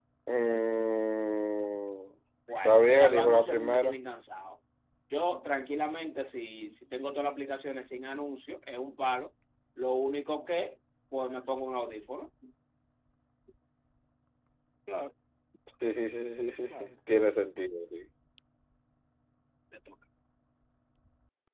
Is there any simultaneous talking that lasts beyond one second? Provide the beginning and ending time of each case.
2.6-4.0

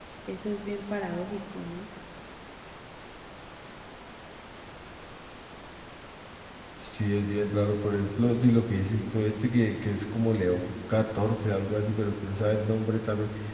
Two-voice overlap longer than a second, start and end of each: none

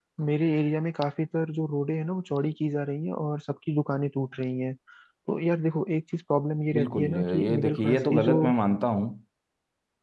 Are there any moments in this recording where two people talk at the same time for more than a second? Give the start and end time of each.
6.7-8.4

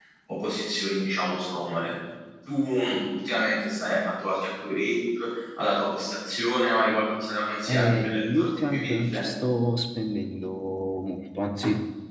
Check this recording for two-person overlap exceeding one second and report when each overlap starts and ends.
7.7-9.2

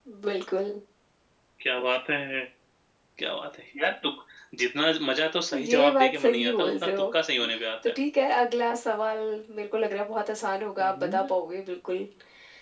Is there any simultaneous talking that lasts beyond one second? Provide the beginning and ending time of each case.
5.6-7.1

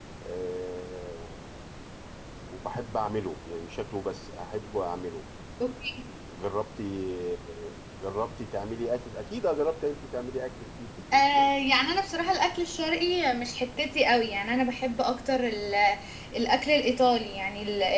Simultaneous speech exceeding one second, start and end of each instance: none

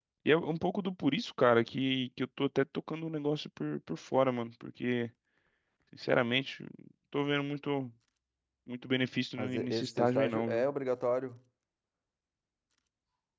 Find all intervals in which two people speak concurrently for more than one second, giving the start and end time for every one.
9.4-10.6

